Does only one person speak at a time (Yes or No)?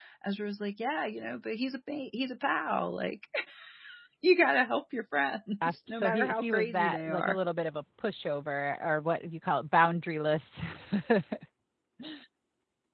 No